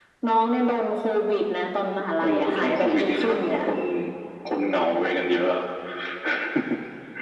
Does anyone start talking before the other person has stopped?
Yes, from 2.2 s

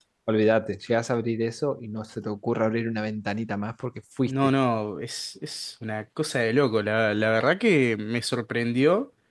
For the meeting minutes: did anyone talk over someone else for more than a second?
No

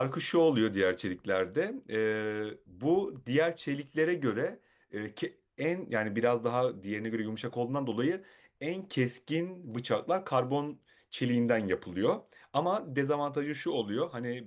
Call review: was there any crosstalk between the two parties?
No

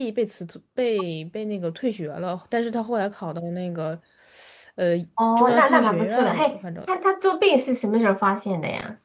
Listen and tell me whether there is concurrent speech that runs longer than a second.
Yes, from 5.3 s

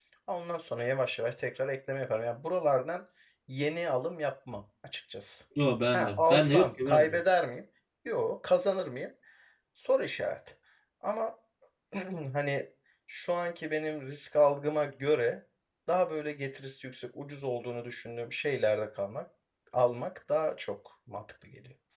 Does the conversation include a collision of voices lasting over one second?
Yes, from 5.9 s

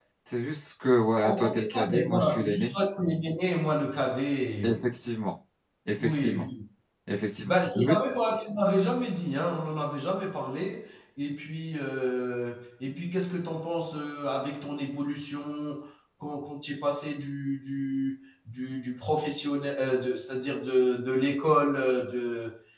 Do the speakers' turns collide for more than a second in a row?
Yes, from 1.2 s

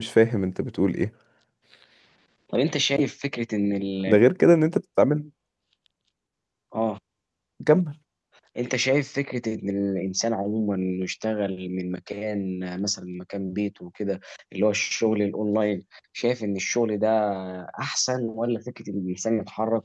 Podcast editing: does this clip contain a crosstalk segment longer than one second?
No

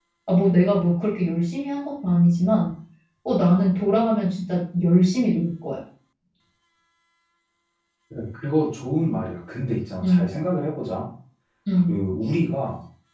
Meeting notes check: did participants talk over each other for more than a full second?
No

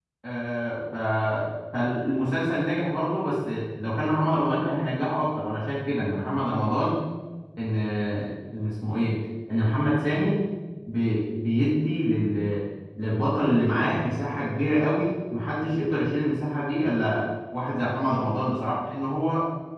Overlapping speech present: No

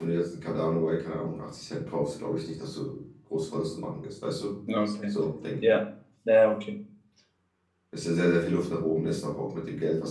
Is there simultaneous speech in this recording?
No

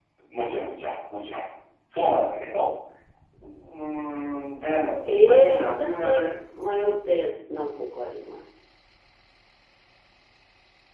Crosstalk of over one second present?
Yes, from 5.0 s

